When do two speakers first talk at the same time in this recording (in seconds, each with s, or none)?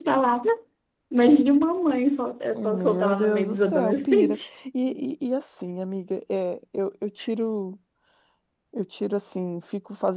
2.5 s